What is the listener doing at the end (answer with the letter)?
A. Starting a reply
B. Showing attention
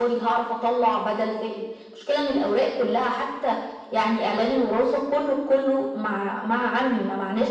A